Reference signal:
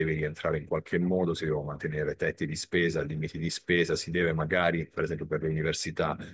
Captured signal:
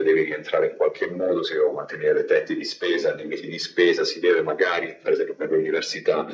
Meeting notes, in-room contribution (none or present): none